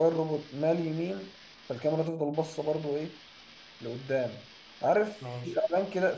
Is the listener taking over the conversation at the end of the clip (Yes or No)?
No